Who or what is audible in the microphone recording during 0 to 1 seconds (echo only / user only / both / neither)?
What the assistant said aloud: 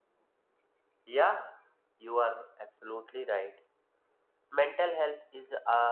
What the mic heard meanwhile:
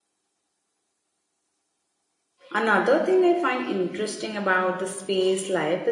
neither